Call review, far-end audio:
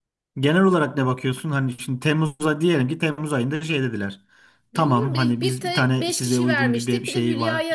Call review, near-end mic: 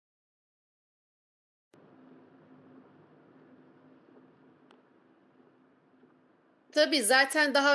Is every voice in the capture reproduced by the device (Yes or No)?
No